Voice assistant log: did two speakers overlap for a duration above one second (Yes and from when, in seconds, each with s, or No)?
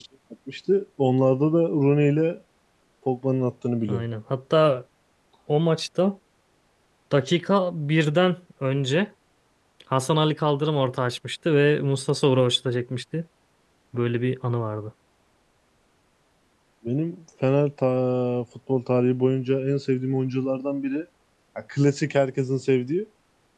No